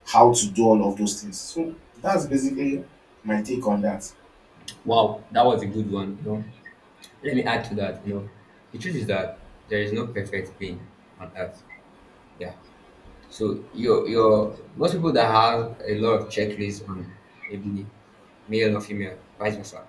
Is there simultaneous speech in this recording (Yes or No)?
No